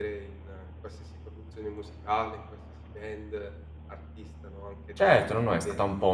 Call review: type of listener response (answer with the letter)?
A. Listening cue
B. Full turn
B